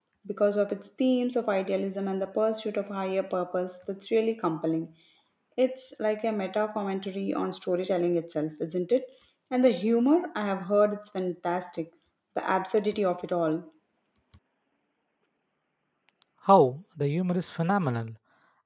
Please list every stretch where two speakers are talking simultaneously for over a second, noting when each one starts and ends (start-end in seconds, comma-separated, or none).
none